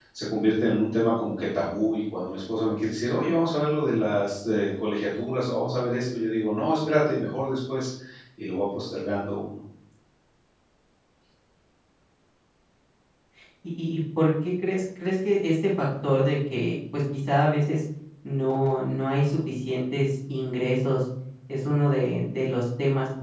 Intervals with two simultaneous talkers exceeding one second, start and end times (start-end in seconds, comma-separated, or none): none